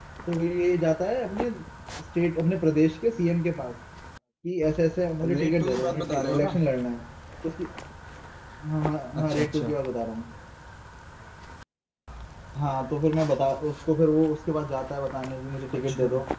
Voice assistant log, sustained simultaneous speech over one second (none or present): present